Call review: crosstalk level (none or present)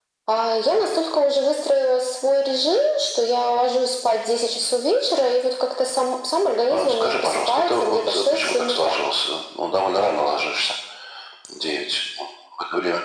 present